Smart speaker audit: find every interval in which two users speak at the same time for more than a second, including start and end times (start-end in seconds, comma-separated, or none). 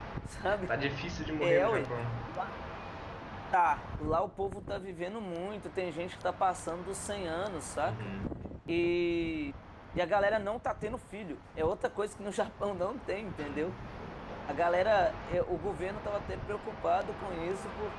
none